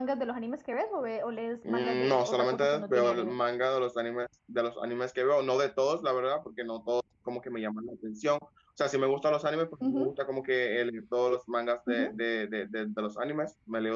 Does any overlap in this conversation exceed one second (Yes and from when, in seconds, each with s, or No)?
Yes, from 1.6 s